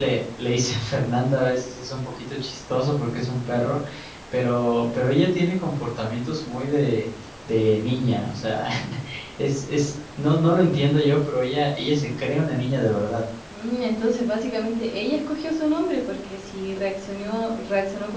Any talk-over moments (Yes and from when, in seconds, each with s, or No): No